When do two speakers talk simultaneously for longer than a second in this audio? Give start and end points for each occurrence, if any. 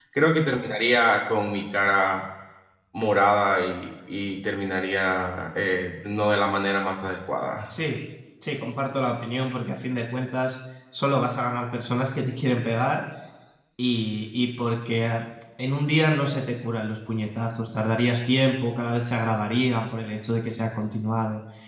none

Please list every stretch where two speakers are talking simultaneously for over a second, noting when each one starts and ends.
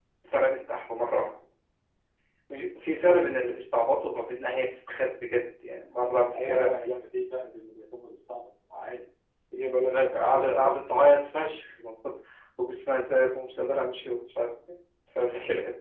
9.8-11.1

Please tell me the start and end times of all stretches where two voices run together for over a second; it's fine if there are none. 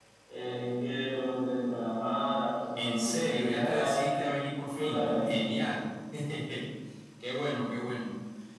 2.8-4.2

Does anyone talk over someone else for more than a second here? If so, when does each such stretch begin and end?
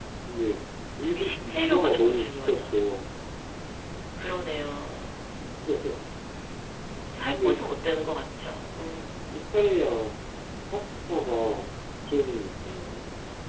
1.0-2.8

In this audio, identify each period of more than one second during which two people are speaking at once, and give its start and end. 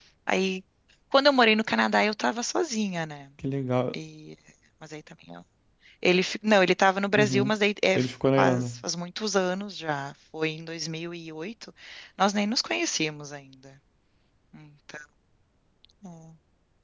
none

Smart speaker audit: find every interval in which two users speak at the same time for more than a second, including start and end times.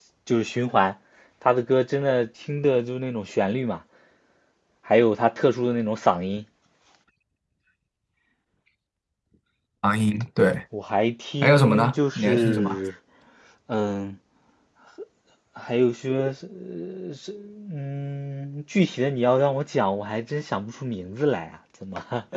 11.4-12.8

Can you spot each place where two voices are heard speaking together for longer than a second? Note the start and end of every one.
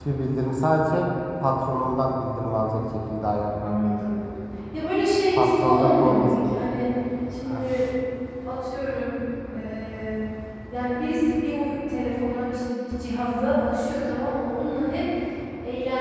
5.4-6.7

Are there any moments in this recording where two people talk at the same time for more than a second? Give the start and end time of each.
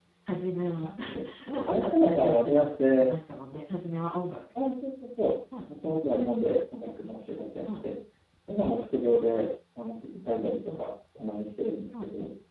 1.7-3.1

